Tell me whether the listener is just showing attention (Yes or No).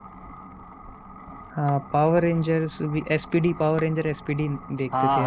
No